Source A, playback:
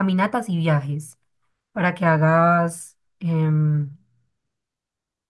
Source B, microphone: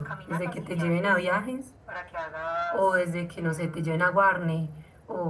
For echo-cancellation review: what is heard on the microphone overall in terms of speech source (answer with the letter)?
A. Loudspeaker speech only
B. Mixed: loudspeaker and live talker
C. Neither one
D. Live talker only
B